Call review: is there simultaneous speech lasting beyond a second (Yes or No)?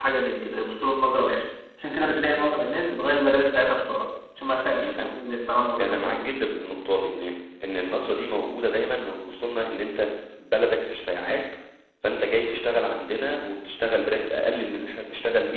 No